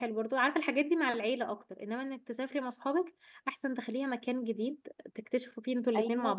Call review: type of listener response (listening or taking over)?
taking over